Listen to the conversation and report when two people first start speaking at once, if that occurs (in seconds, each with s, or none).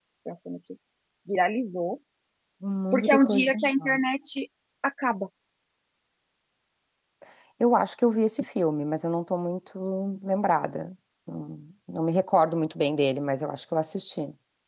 2.9 s